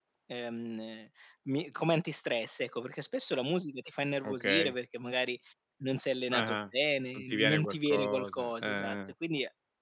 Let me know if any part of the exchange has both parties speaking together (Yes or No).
Yes